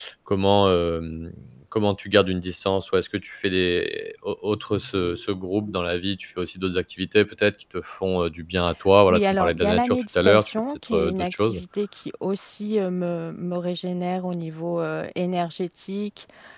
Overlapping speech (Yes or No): Yes